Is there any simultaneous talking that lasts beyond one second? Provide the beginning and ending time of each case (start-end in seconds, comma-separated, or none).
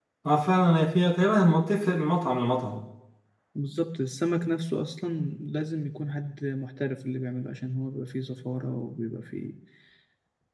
none